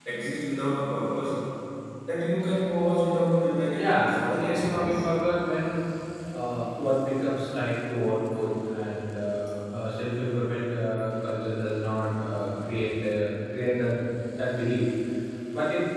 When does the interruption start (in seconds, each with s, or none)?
3.7 s